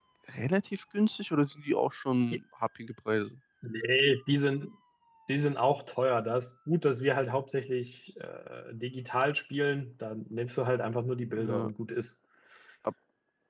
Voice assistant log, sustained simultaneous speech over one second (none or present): none